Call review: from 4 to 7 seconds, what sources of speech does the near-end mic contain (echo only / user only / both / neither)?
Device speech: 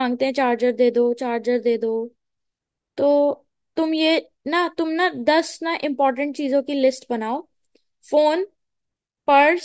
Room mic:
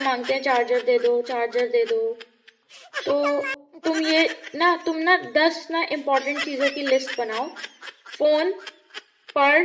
echo only